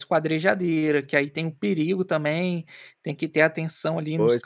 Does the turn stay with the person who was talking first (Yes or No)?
No